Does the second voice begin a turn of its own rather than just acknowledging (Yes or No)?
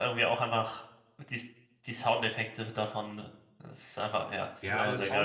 Yes